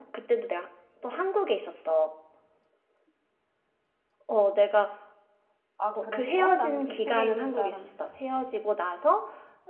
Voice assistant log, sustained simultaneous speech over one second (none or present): present